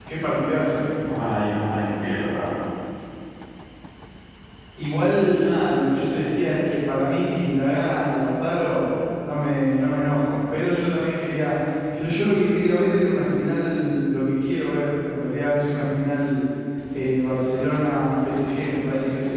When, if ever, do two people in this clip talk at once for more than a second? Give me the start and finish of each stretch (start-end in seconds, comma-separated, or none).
none